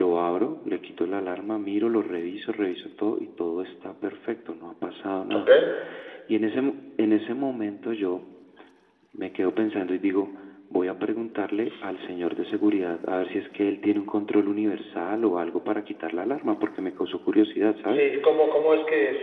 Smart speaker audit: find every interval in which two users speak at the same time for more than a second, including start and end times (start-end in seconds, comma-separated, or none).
none